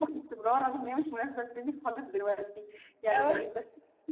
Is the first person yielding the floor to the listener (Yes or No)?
No